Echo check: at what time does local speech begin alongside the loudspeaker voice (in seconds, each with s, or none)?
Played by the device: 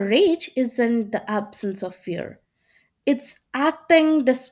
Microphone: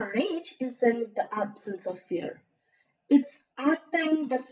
none